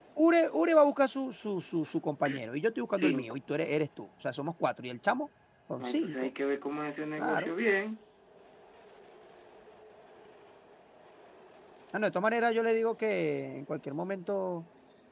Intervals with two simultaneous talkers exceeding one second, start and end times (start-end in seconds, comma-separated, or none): none